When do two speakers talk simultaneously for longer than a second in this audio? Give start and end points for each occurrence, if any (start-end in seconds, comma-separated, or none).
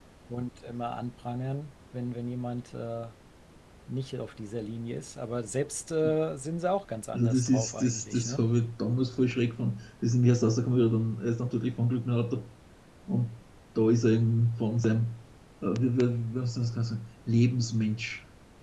7.1-8.4